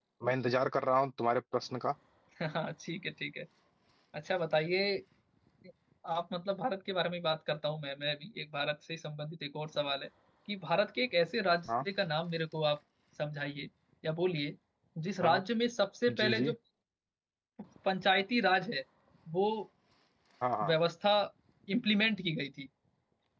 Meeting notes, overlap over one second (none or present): none